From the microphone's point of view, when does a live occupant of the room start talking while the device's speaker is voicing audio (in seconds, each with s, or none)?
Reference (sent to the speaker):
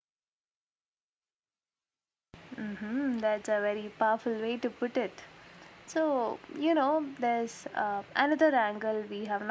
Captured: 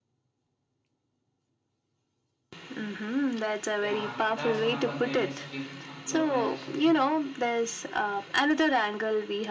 3.8 s